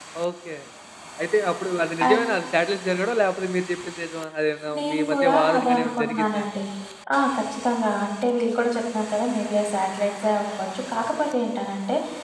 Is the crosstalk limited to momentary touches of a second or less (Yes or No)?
No